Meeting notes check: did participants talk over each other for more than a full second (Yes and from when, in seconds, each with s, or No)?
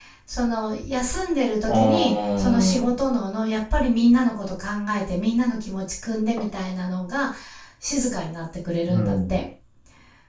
Yes, from 1.7 s